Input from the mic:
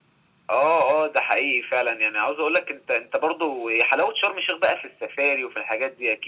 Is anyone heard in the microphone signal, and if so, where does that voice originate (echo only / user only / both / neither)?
echo only